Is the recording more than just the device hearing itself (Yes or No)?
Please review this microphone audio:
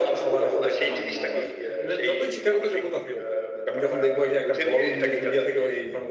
Yes